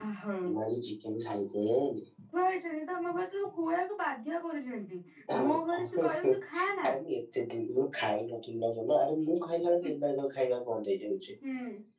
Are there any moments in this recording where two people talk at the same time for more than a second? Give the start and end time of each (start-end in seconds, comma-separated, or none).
5.4-6.9